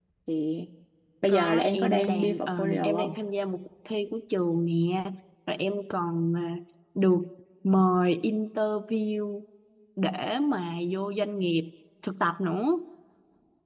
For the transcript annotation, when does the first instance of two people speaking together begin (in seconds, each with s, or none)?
1.3 s